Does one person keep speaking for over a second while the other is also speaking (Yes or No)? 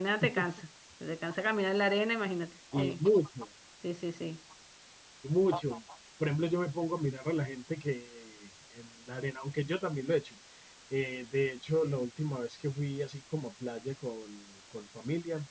No